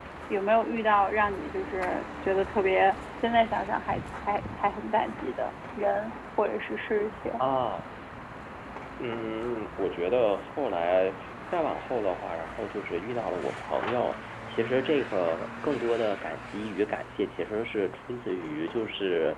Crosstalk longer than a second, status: none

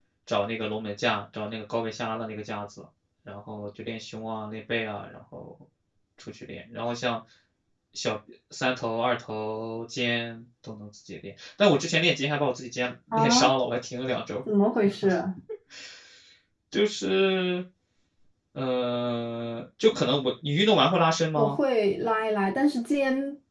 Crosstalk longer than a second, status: none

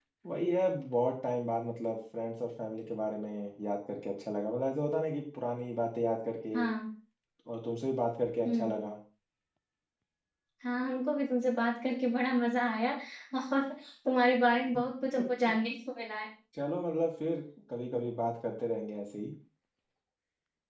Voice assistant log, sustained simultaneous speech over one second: none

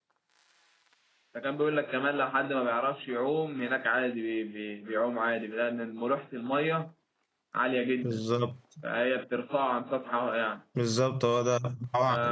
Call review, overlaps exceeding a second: none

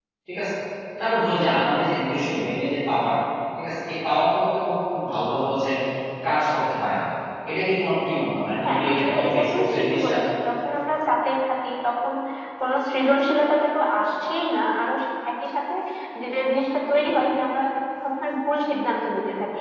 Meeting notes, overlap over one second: present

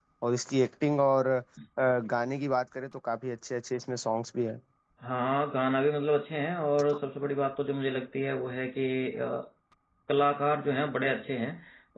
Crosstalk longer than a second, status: none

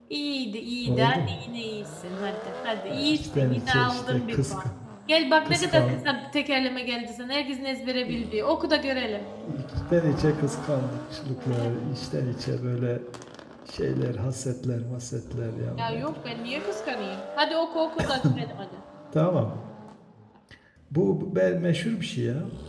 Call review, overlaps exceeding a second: present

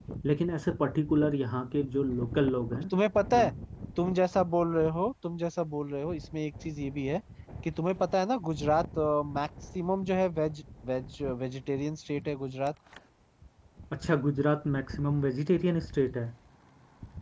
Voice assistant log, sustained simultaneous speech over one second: none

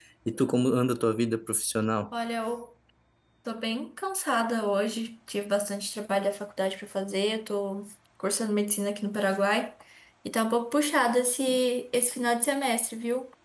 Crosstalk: none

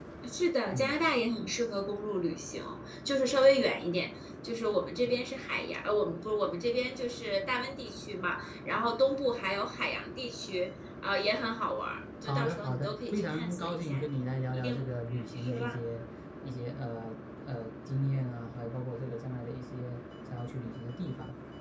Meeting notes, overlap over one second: present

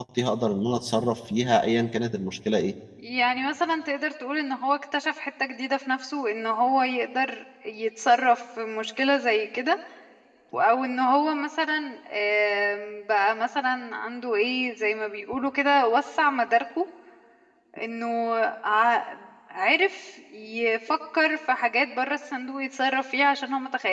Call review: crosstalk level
none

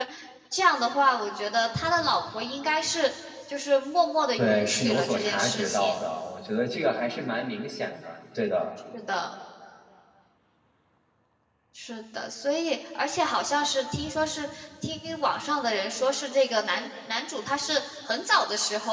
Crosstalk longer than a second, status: present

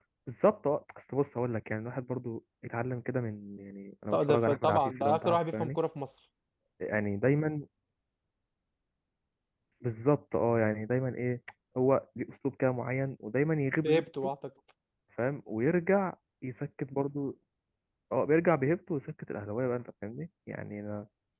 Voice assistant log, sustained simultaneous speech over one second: present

